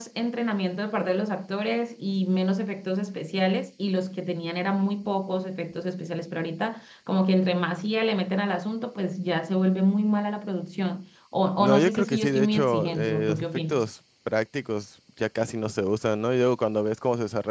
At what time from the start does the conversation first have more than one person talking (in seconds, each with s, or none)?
11.6 s